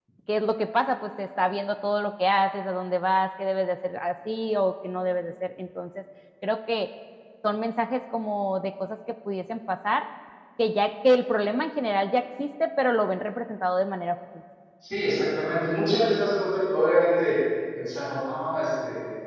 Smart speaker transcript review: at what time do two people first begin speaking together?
none

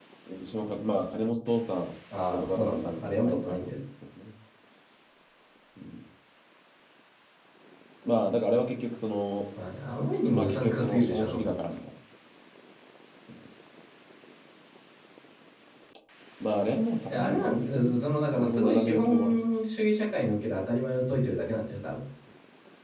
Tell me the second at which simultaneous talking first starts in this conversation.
2 s

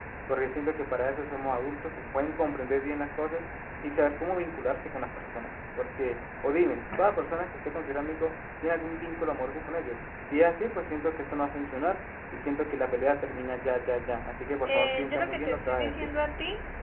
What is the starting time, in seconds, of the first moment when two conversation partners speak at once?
15 s

